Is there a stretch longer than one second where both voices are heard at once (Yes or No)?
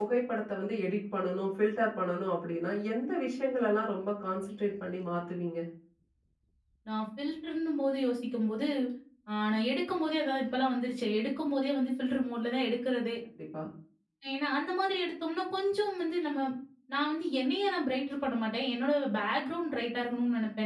No